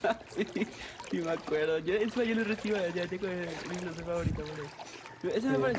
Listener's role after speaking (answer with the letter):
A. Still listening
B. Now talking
A